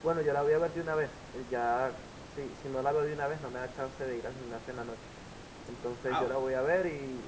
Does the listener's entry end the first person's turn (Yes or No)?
No